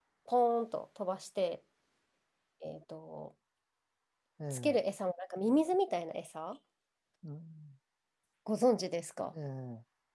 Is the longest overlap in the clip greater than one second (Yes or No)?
No